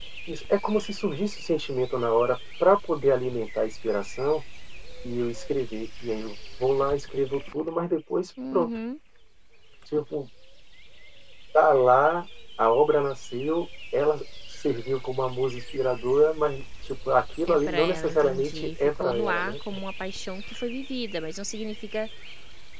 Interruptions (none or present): present